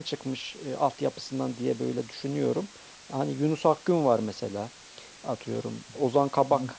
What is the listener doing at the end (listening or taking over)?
listening